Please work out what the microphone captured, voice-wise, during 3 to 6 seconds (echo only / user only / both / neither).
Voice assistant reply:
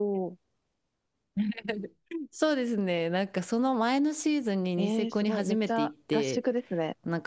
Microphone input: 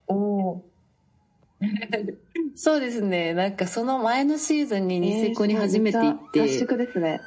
echo only